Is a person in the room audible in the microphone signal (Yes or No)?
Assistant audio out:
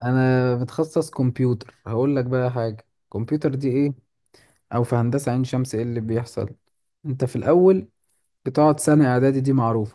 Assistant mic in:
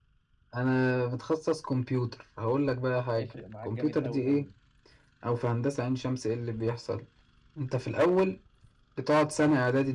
Yes